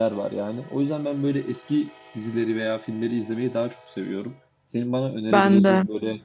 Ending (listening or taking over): listening